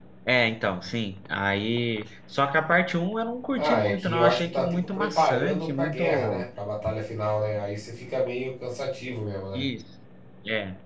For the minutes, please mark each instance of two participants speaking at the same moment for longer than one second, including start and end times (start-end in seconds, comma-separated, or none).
3.6-6.5